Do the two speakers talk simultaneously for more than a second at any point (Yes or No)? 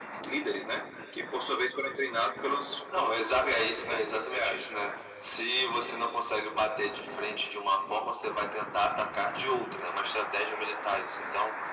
Yes